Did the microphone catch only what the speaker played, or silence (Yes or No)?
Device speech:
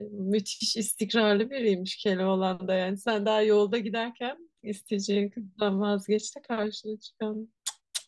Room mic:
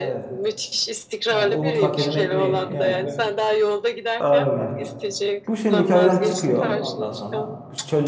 No